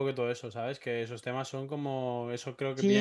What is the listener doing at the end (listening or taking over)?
taking over